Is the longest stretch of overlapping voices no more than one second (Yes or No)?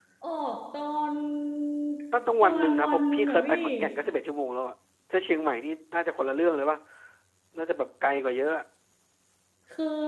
No